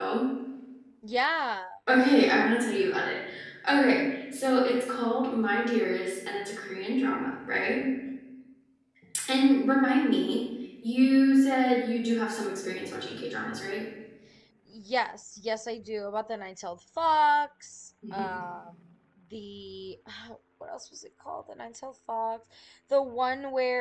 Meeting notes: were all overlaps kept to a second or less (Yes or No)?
Yes